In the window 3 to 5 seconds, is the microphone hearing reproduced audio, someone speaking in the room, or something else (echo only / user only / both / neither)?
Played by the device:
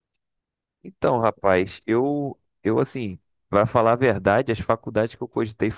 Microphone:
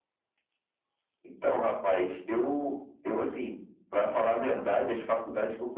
echo only